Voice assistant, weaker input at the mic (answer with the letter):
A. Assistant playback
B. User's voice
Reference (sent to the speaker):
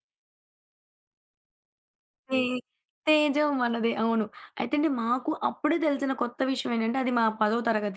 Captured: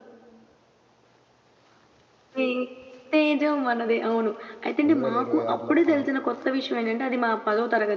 B